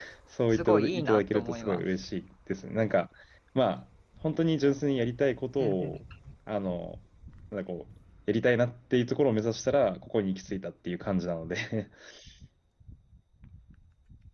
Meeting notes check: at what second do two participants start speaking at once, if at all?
0.5 s

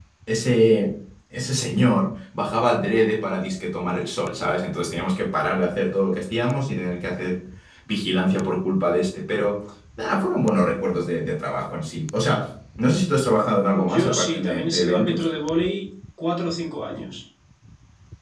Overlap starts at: 13.7 s

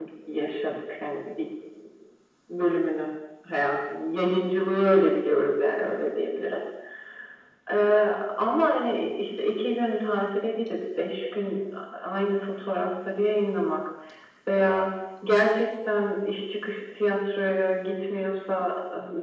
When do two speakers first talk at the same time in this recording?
none

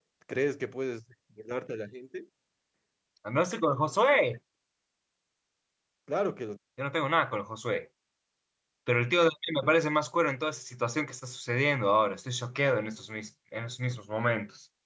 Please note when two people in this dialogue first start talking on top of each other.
none

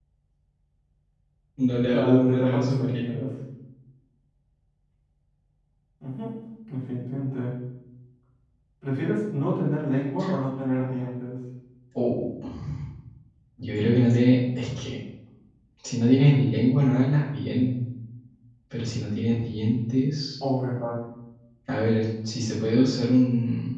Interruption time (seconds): 1.9 s

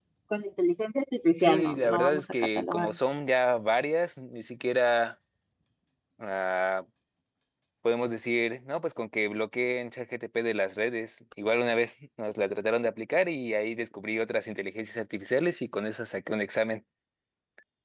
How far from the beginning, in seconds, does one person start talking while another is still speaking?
1.4 s

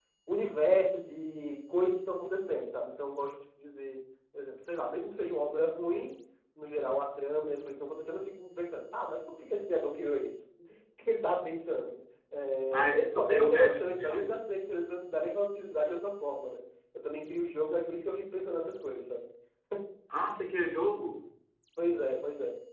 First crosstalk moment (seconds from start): 12.7 s

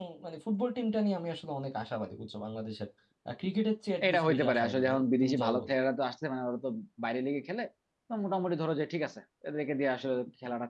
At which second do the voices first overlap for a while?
4.1 s

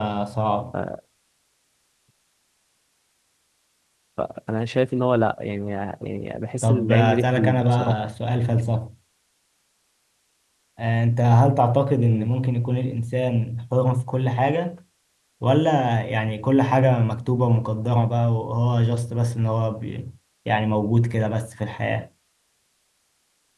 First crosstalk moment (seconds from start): 6.6 s

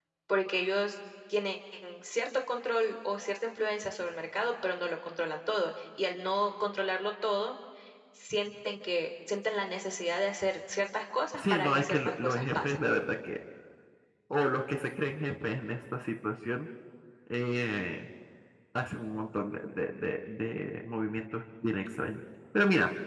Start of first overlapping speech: 11.3 s

